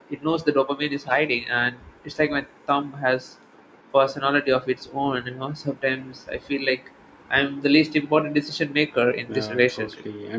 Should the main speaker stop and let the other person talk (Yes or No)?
Yes